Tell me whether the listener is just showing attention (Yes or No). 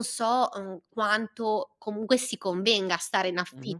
Yes